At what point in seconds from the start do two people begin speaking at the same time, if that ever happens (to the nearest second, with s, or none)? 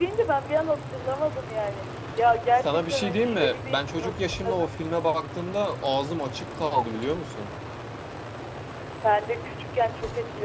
3 s